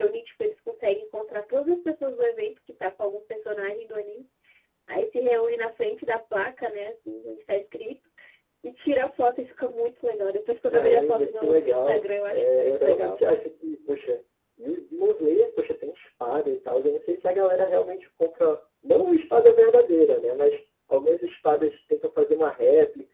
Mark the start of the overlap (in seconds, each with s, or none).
10.7 s